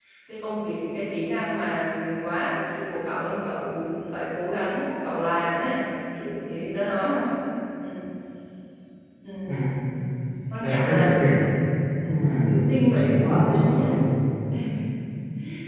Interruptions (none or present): present